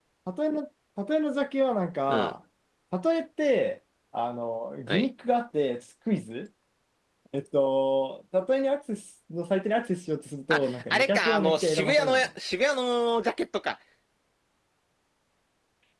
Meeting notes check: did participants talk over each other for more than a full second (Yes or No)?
Yes